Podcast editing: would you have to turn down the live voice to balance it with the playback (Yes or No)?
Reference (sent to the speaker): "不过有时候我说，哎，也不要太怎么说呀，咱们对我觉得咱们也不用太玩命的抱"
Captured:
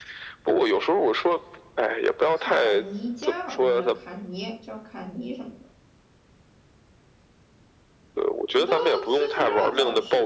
No